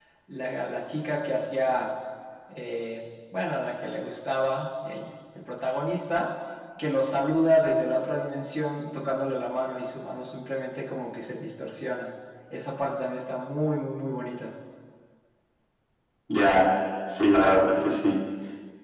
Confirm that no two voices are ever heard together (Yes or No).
Yes